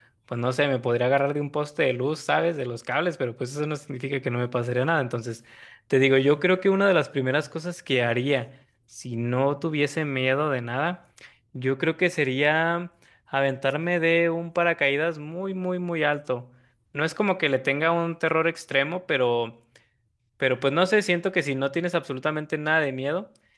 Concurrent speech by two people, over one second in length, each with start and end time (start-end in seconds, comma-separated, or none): none